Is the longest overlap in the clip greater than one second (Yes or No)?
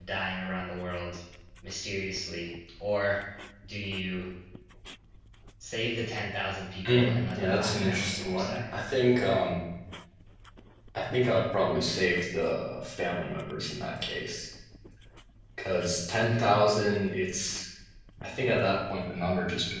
Yes